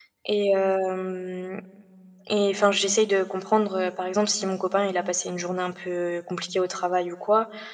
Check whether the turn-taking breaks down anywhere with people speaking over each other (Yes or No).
No